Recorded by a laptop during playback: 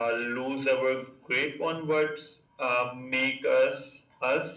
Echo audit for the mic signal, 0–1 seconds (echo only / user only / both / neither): echo only